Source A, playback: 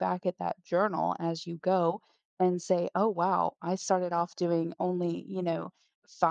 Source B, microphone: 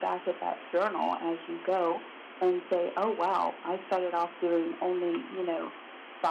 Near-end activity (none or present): none